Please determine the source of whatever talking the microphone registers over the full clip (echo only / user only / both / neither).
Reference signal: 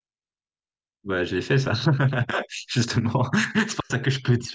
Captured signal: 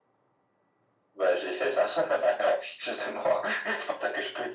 echo only